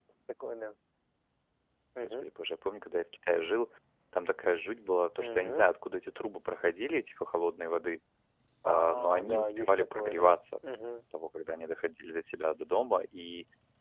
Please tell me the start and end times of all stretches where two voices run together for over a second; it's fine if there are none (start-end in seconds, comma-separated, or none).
8.7-10.3